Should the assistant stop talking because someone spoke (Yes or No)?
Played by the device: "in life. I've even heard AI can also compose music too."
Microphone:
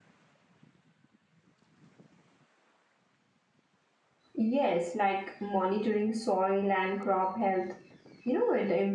Yes